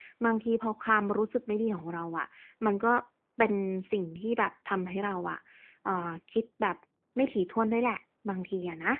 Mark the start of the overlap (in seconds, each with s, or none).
none